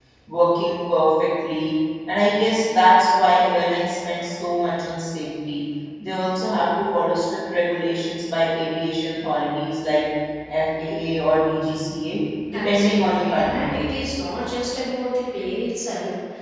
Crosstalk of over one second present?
Yes, from 12.5 s

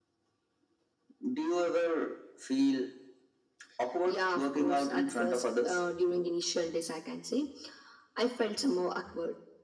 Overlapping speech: Yes, from 4.1 s

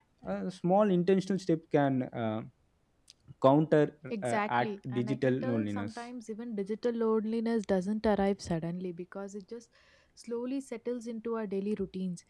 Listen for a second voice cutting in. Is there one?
Yes, from 4.1 s

